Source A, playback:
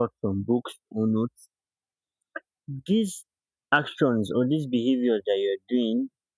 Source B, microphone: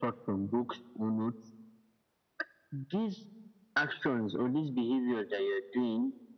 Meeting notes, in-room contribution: none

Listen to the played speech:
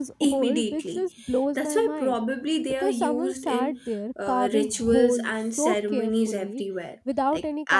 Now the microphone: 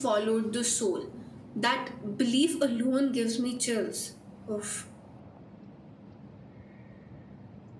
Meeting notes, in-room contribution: present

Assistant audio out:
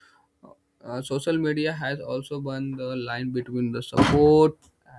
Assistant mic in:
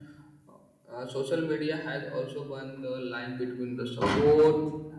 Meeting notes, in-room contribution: none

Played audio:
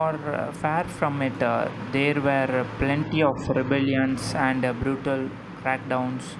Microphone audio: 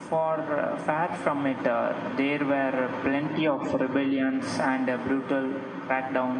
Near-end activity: none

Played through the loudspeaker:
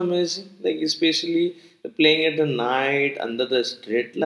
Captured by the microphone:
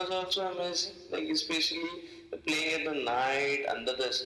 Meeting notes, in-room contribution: none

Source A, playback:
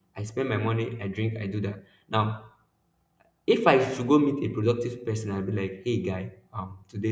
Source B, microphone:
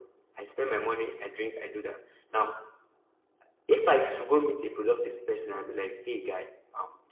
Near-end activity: none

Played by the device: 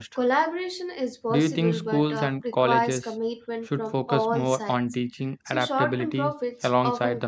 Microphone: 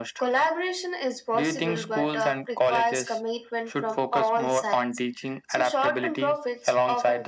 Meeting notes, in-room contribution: none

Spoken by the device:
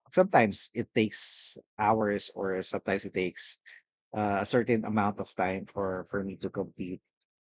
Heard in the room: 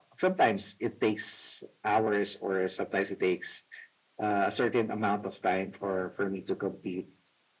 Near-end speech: none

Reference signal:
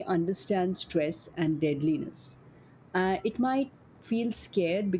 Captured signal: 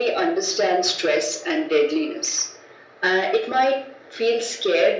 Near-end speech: none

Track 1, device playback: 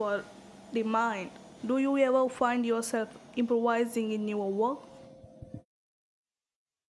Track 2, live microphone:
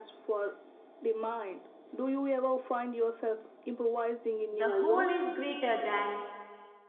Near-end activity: present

